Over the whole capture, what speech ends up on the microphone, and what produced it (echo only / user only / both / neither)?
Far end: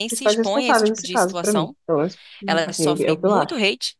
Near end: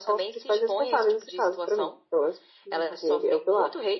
echo only